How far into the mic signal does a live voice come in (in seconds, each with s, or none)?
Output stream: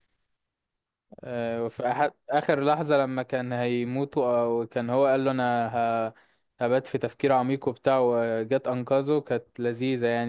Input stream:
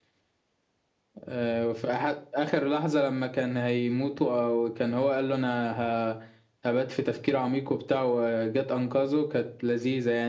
none